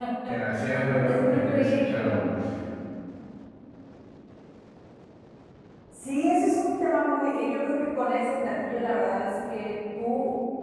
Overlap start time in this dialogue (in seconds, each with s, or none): 1.0 s